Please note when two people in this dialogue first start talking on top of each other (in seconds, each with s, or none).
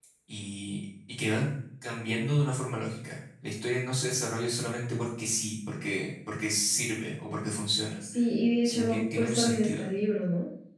8.6 s